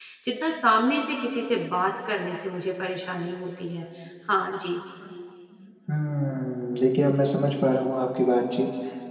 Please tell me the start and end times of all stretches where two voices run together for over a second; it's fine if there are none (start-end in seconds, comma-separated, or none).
none